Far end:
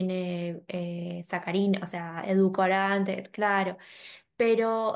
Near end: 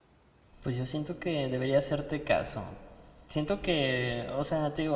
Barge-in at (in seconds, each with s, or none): 0.6 s